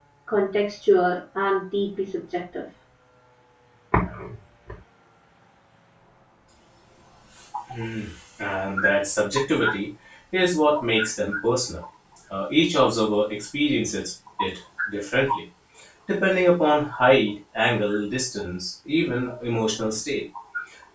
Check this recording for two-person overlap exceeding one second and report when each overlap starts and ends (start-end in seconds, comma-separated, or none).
none